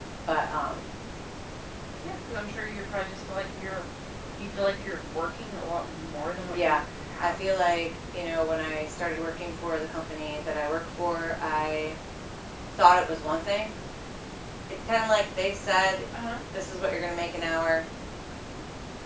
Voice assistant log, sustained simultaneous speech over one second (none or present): none